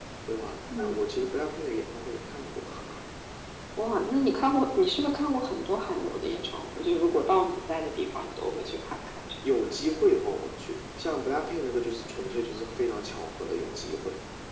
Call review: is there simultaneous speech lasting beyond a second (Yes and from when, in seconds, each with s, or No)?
No